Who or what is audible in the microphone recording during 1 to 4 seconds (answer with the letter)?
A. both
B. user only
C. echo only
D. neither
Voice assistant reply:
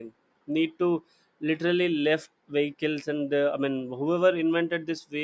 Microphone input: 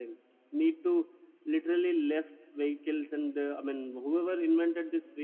C